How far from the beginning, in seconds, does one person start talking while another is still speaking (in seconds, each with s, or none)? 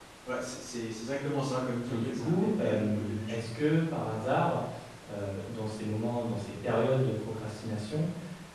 1.9 s